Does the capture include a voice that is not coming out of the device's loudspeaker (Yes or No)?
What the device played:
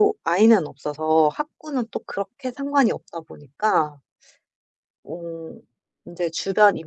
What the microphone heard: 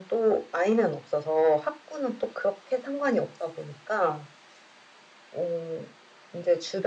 No